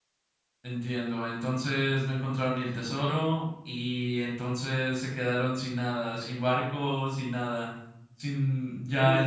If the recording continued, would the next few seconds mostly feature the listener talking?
Yes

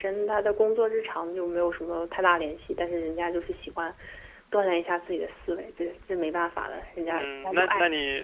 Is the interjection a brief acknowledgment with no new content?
No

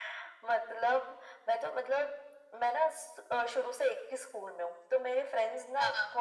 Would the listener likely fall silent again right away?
Yes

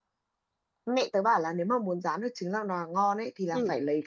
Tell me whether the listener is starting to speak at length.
No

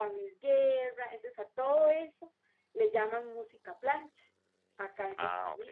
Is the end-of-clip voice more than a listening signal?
No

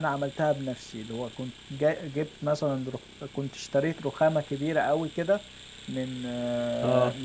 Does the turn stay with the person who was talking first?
Yes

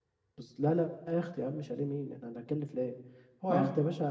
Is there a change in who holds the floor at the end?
No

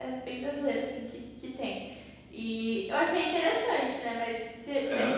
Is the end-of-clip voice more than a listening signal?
No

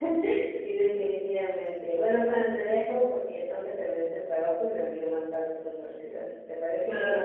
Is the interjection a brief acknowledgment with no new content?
No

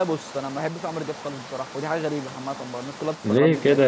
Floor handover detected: Yes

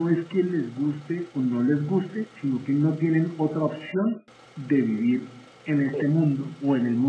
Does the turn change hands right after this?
No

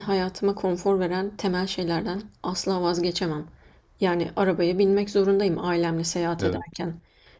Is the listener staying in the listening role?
Yes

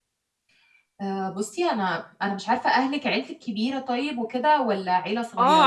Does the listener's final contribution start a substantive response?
Yes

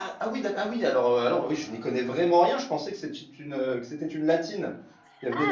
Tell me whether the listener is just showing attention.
No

